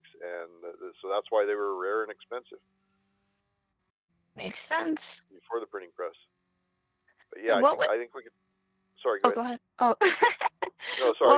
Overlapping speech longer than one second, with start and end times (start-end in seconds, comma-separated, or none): none